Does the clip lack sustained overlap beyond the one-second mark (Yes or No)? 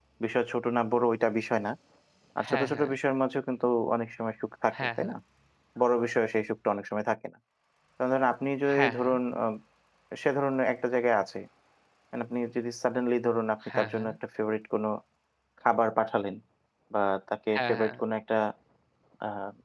Yes